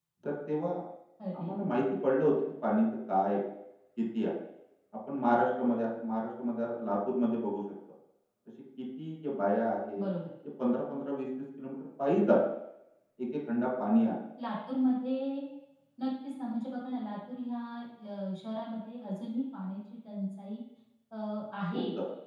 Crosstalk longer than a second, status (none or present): none